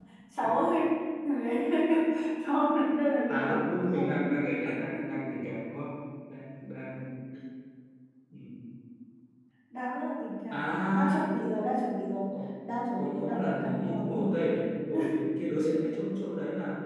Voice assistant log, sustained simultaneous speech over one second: present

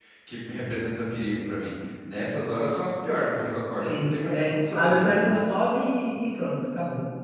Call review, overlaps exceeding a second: present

